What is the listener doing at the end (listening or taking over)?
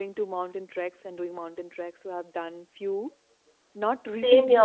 listening